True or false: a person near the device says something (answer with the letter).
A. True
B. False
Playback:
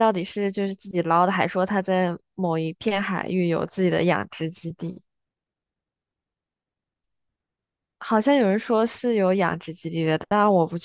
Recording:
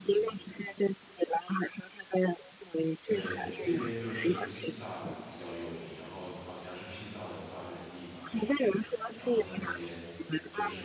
A